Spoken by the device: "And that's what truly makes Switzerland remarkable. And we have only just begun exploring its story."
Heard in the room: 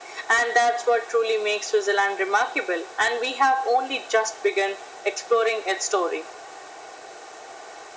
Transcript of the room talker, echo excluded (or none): none